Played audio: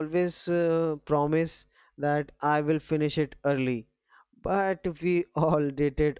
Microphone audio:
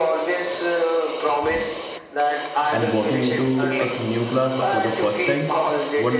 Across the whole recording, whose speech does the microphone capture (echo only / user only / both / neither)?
both